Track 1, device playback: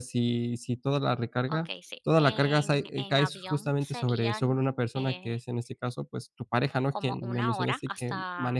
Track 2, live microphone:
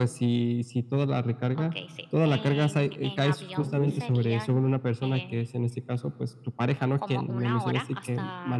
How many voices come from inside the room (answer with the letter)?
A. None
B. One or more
B